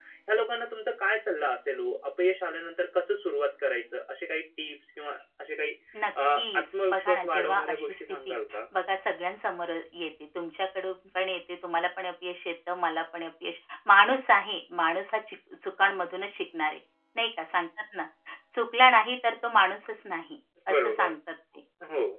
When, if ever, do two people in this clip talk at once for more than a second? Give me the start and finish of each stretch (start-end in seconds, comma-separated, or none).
6.4-8.3